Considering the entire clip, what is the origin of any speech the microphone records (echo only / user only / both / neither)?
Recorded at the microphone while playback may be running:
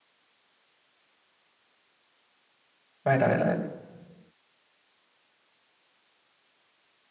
user only